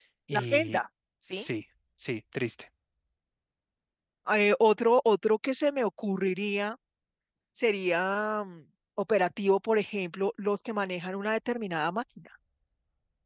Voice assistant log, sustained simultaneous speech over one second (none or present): none